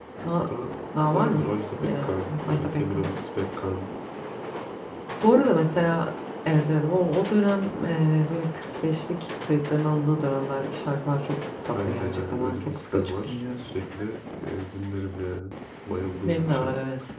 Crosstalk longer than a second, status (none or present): present